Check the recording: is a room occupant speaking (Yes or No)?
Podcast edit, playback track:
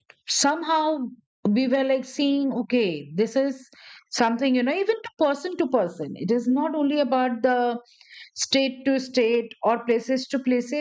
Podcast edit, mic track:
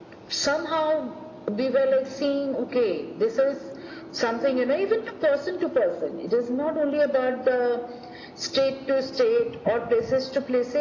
No